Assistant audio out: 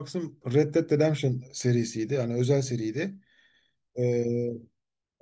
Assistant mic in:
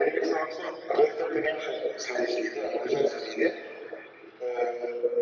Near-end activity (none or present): none